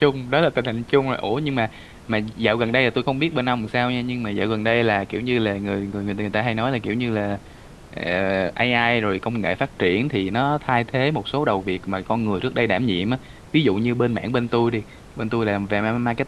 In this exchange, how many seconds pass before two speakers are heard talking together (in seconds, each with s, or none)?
none